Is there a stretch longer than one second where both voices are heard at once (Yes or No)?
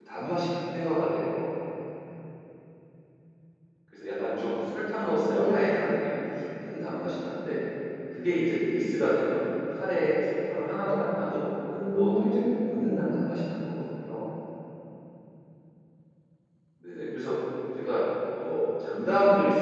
Yes